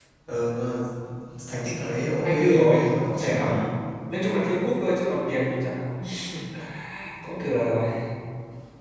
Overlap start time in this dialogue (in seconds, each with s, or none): 2.2 s